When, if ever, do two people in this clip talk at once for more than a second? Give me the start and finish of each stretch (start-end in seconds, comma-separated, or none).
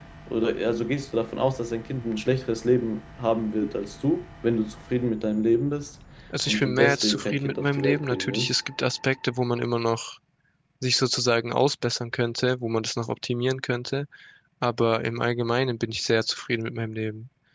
6.5-8.6